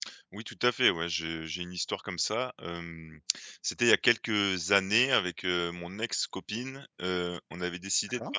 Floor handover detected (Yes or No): No